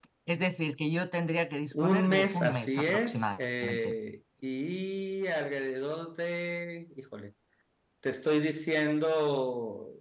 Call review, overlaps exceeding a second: present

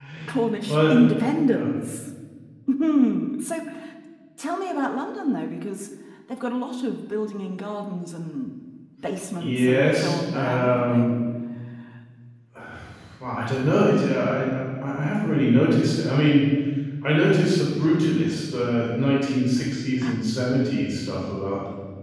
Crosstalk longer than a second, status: present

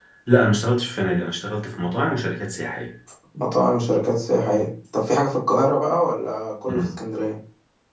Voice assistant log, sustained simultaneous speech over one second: none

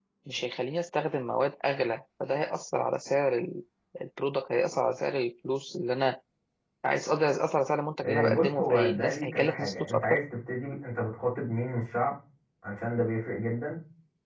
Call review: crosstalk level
present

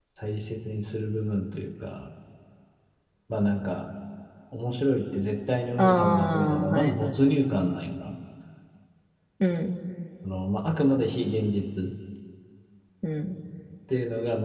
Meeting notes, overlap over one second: present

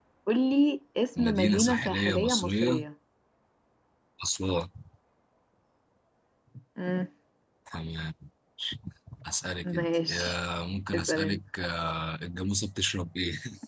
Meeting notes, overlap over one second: present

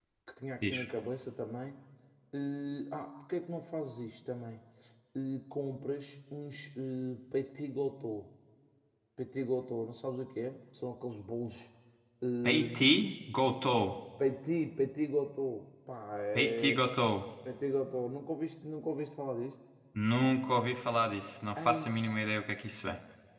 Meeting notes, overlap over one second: none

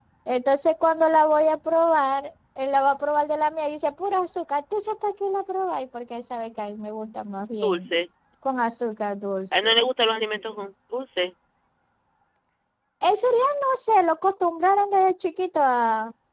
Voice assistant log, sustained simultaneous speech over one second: none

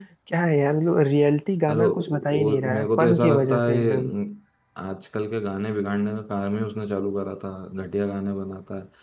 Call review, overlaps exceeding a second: present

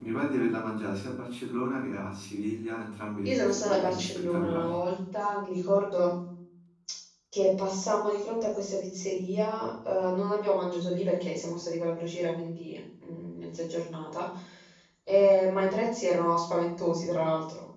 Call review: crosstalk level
present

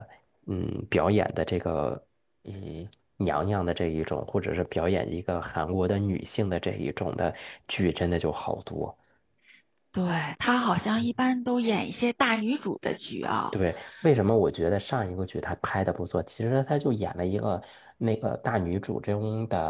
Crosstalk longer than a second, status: none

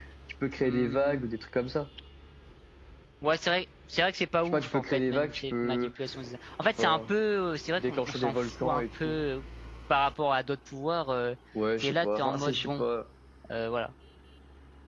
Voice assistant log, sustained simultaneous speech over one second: present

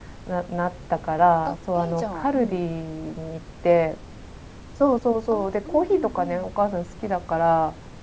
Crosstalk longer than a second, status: present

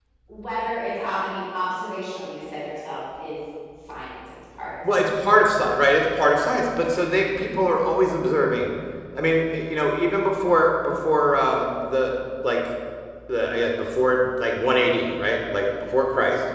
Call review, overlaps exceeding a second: none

